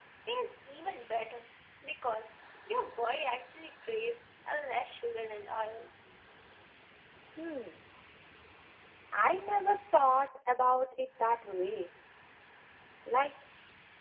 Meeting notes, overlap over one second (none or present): none